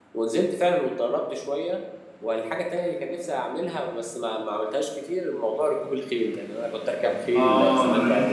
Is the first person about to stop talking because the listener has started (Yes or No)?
Yes